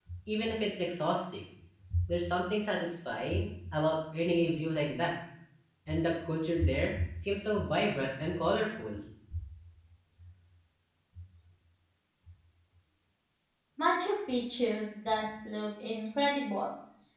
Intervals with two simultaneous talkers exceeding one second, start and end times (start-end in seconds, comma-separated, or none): none